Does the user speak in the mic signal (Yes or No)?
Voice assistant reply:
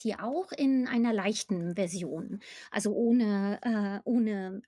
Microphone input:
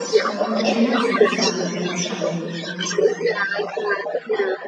Yes